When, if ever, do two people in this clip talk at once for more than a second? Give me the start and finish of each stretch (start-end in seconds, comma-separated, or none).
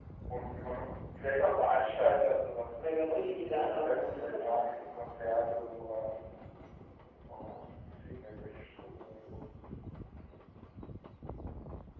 2.8-4.6